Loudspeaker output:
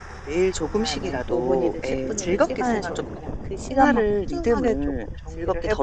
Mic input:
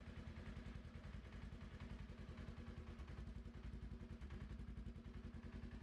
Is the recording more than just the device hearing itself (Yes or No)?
No